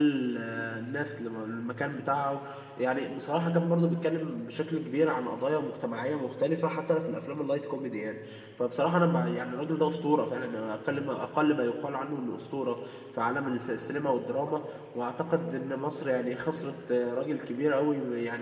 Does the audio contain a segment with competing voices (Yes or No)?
No